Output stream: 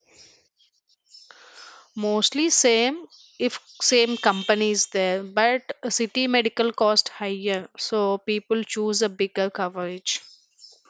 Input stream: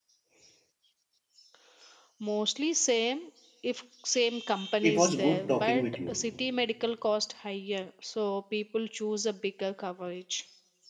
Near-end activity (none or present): present